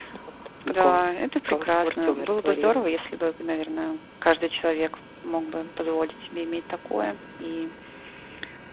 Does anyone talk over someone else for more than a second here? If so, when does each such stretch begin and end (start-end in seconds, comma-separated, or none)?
1.5-2.9